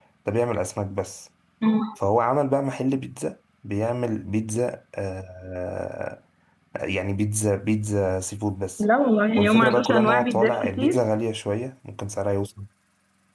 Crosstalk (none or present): present